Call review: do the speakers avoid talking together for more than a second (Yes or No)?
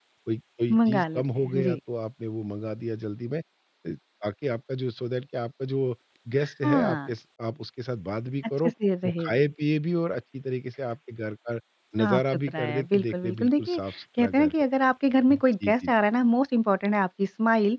No